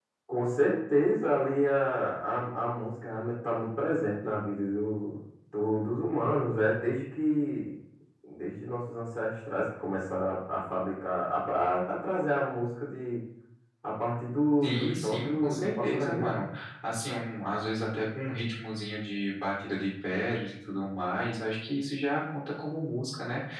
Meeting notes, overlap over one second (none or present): present